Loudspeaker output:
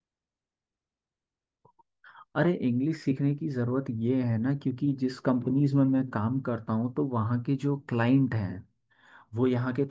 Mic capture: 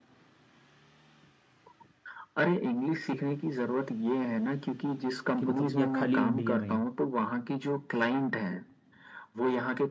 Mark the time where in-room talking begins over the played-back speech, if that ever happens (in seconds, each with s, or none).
5.4 s